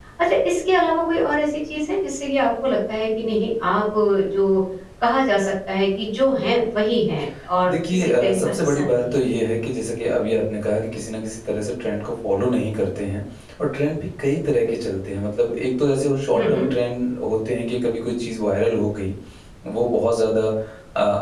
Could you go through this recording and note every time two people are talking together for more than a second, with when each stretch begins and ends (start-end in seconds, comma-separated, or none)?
7.7-9.2